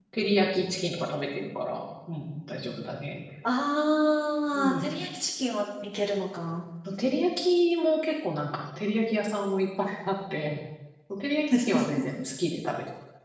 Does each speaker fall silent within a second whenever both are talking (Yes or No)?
Yes